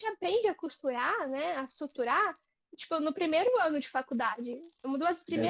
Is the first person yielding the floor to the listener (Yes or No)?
Yes